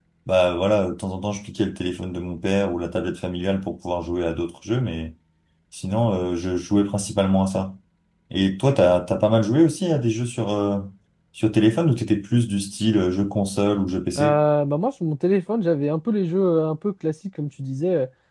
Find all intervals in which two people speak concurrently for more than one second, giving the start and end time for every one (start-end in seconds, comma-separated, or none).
none